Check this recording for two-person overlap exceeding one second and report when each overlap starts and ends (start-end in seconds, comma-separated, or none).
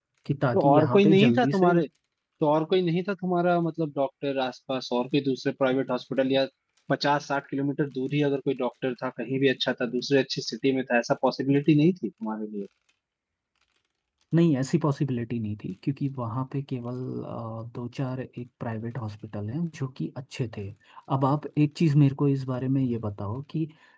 0.5-1.7